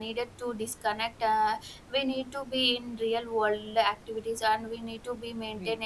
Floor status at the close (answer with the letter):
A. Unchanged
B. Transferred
A